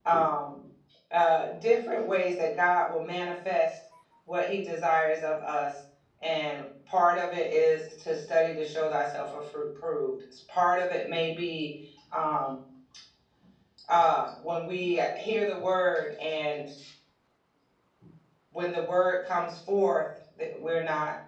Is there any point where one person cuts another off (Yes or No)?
No